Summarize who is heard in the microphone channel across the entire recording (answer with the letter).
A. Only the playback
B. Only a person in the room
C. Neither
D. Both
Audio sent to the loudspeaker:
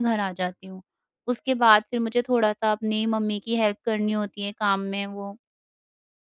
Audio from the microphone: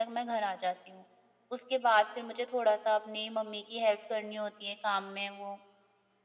A